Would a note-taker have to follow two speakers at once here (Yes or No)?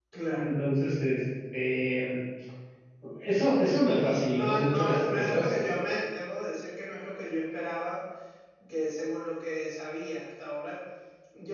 Yes